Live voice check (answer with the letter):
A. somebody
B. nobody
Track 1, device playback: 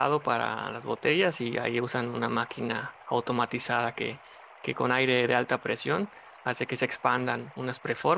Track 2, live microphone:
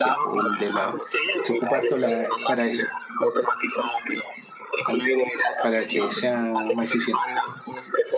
A